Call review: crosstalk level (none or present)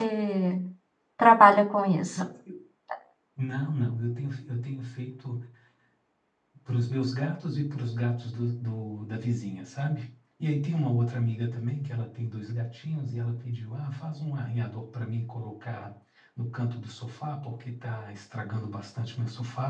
none